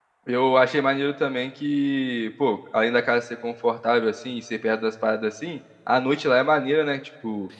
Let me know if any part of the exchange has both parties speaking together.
No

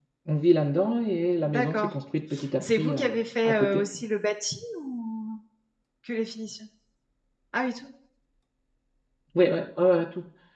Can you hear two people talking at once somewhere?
Yes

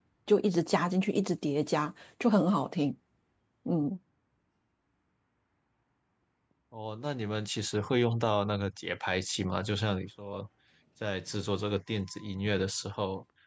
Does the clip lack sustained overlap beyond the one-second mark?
Yes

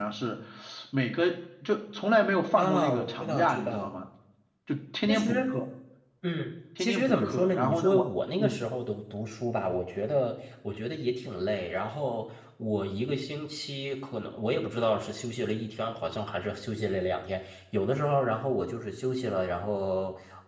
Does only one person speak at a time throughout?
No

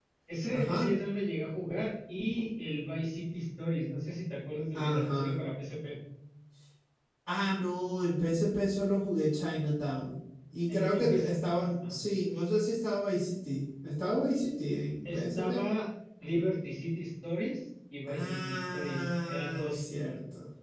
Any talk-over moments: Yes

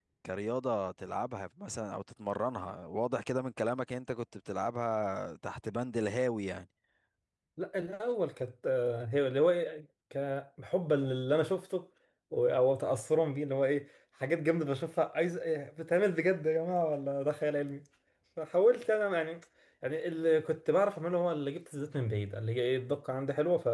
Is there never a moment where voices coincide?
Yes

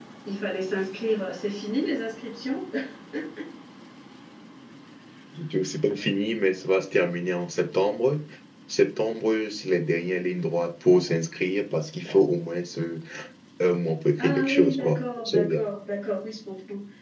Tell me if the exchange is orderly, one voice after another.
No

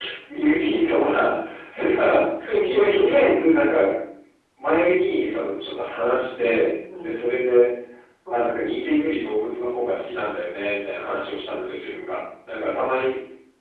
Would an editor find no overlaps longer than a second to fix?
Yes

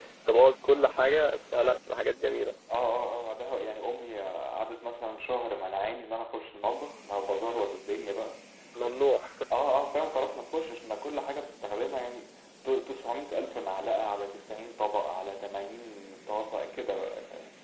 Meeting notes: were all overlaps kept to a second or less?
Yes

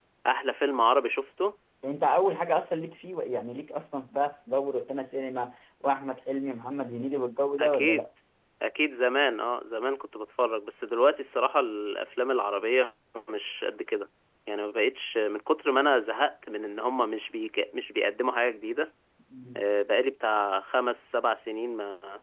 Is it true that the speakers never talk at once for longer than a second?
Yes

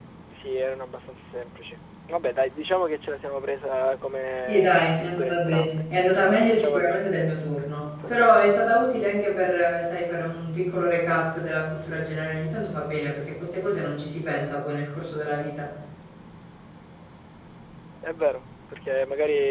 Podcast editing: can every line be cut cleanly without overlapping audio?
No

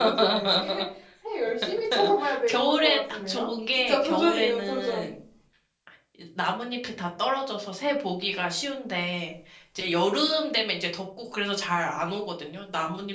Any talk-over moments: Yes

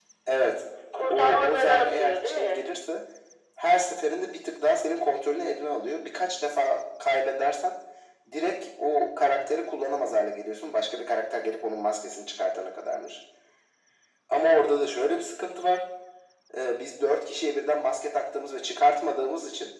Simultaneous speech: Yes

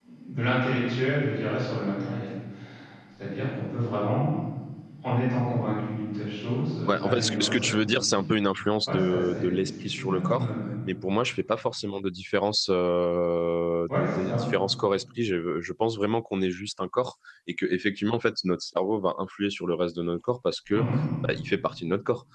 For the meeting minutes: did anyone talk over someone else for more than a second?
Yes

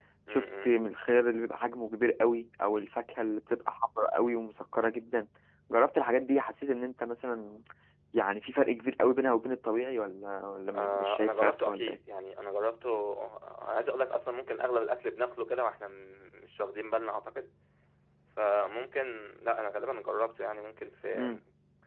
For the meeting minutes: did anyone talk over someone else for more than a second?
Yes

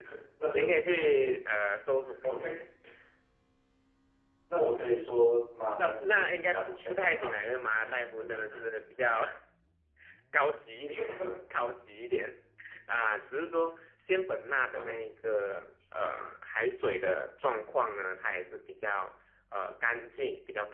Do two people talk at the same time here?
Yes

